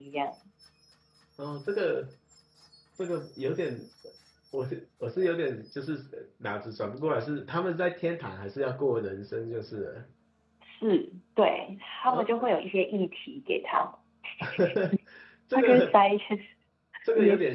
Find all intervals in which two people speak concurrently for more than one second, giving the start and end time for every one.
none

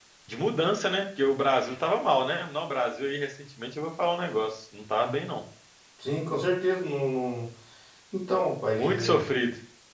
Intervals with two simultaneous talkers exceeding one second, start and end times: none

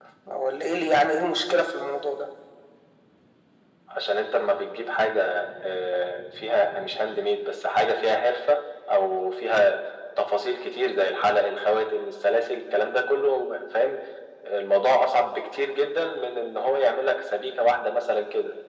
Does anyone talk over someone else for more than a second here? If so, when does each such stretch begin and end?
none

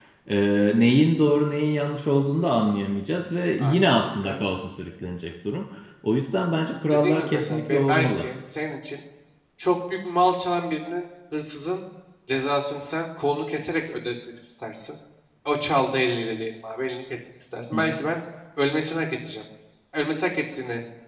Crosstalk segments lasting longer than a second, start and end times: 6.9-8.2

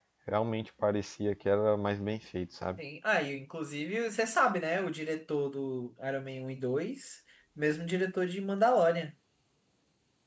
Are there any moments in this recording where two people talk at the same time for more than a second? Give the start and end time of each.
none

